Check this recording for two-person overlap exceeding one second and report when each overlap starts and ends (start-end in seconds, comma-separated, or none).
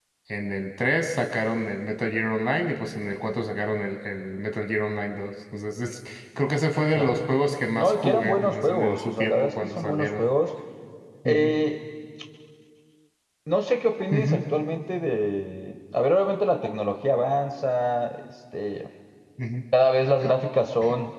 7.7-10.3